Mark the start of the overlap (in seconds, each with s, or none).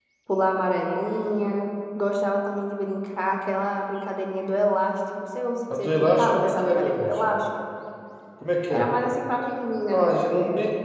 5.7 s